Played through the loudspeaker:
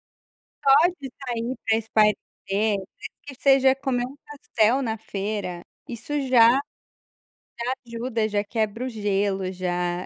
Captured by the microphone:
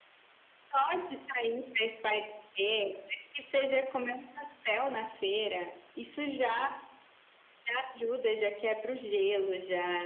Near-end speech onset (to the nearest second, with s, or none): none